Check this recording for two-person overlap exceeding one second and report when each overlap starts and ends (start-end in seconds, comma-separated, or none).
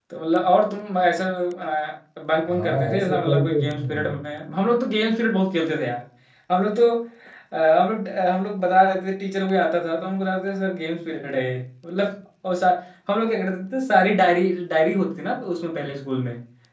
2.5-4.1